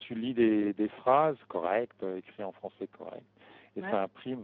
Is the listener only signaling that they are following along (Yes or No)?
Yes